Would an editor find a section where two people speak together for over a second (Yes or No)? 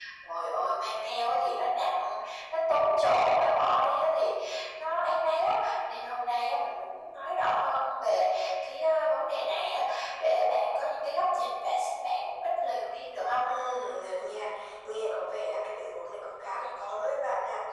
No